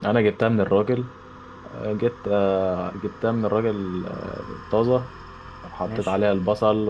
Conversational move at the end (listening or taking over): listening